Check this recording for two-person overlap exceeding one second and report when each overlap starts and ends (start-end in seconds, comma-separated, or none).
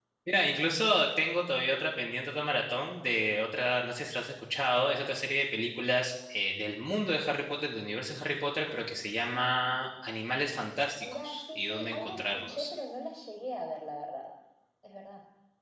11.0-12.7